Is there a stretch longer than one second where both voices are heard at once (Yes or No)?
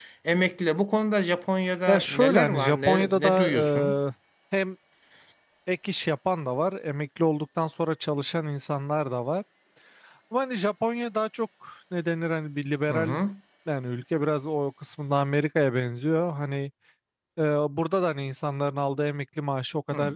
Yes